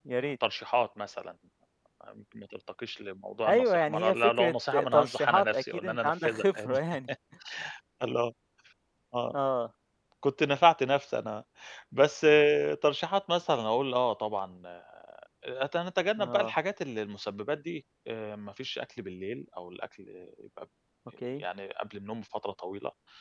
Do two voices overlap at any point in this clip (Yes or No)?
Yes